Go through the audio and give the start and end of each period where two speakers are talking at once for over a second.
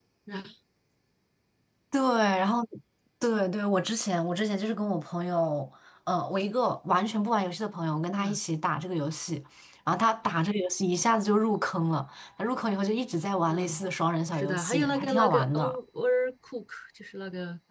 14.3-15.8

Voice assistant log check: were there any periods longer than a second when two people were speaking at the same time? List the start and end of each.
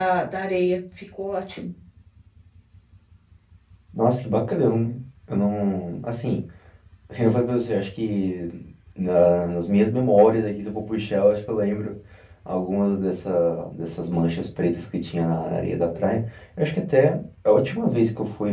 none

